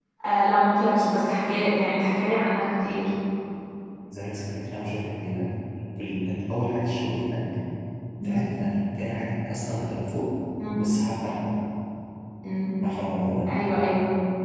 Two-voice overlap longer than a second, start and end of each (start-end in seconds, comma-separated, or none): none